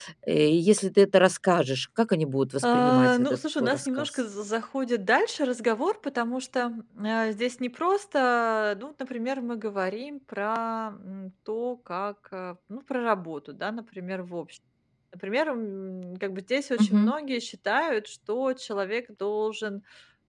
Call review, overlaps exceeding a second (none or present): present